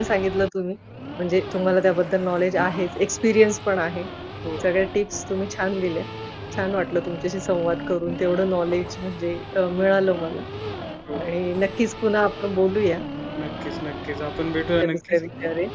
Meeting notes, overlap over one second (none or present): none